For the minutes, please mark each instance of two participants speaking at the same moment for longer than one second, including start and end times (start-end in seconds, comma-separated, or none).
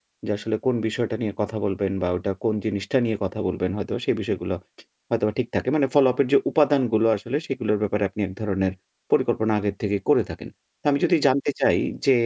none